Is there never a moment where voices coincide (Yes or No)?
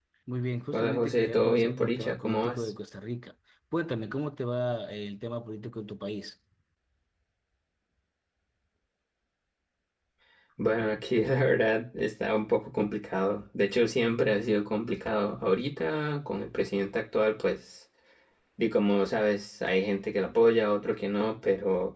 No